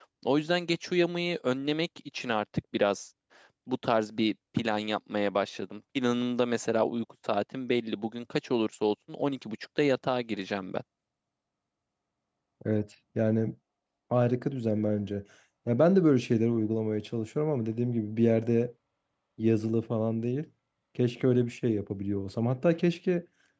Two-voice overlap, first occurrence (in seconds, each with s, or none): none